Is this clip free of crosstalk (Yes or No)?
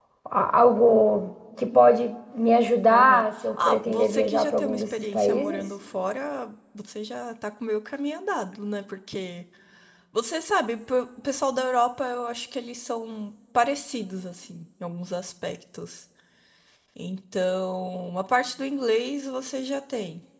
No